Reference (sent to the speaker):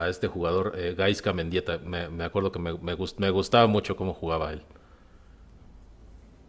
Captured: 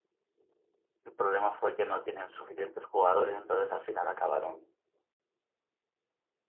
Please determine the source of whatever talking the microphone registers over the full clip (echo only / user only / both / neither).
user only